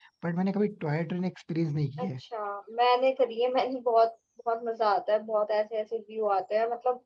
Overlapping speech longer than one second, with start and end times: none

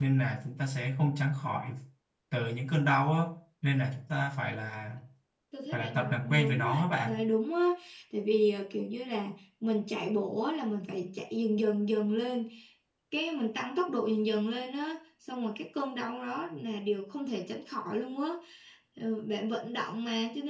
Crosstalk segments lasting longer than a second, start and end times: 5.7-7.2

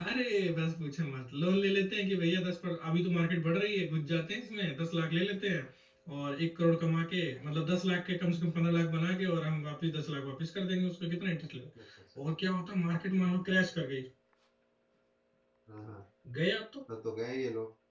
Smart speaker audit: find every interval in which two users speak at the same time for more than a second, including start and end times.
none

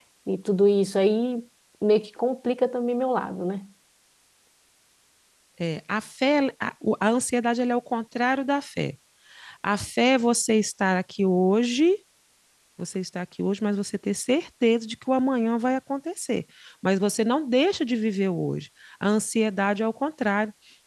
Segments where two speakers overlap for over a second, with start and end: none

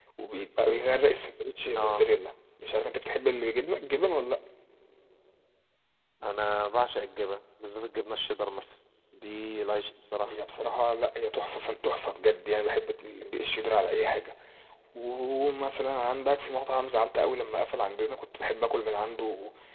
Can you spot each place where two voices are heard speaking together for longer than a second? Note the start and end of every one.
none

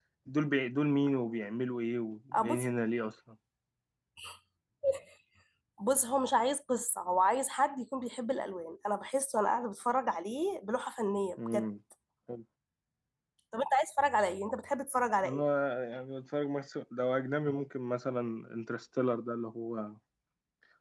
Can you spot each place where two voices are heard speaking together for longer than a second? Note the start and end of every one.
none

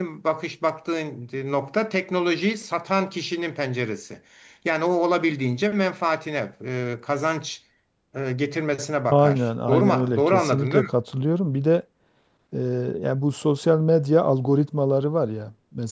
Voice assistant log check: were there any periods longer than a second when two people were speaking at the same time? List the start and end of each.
9.1-10.9

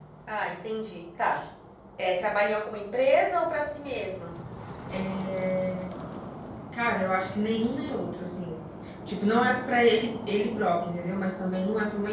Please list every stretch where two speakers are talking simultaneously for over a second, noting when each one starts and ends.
none

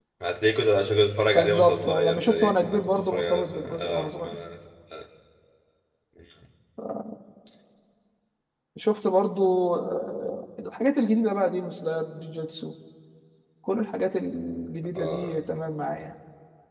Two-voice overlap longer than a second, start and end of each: 1.3-4.3

